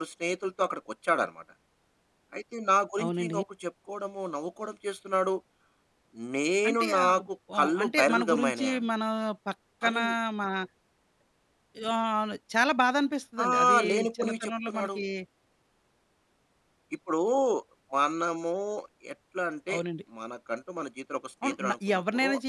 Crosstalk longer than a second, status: present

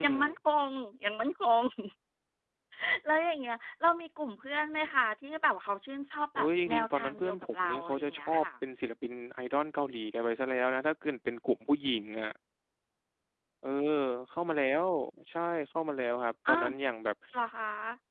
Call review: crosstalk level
present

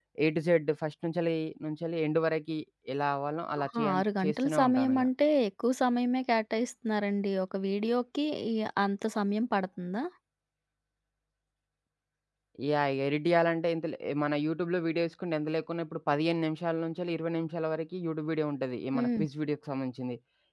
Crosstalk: present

